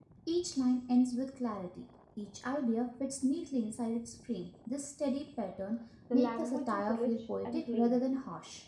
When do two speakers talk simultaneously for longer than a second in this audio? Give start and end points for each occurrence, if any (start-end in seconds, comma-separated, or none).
6.1-8.0